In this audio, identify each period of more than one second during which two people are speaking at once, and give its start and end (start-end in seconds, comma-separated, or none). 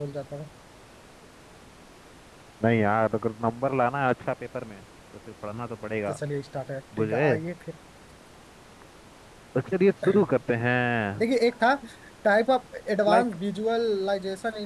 none